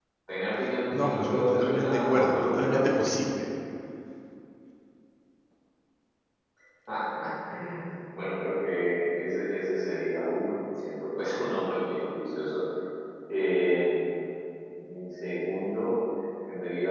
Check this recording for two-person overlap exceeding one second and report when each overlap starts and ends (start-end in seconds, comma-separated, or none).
0.9-2.8